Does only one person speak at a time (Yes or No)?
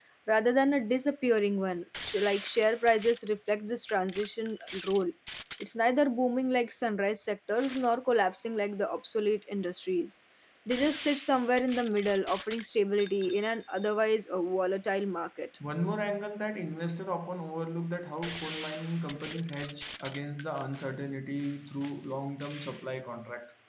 Yes